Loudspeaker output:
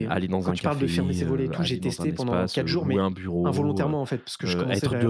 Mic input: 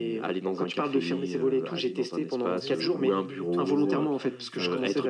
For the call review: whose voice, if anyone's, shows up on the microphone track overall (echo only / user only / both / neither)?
both